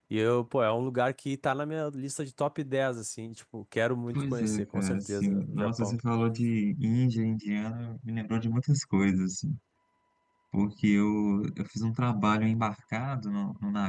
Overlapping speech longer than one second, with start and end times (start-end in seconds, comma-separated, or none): 4.1-6.0